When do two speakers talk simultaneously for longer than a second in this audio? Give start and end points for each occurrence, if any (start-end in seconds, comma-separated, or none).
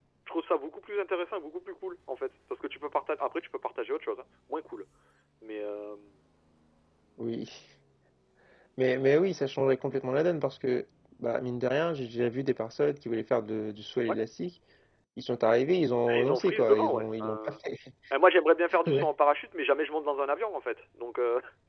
16.1-17.5